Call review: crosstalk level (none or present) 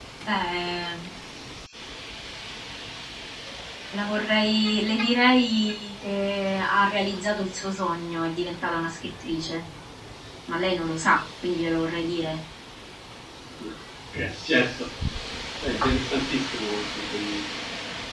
none